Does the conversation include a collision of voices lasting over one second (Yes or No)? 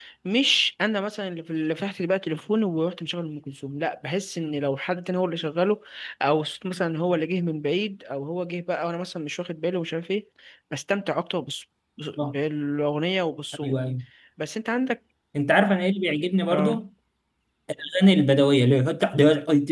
No